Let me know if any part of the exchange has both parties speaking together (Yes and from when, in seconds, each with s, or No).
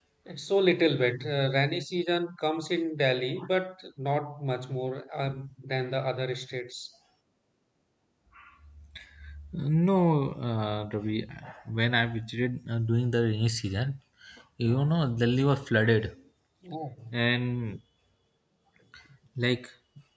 No